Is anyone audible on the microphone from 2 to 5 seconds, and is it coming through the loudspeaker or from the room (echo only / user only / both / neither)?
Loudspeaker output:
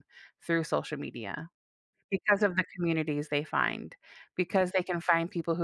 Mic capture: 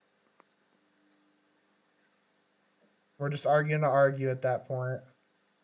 user only